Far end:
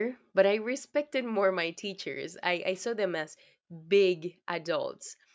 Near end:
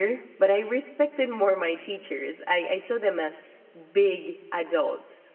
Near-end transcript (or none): none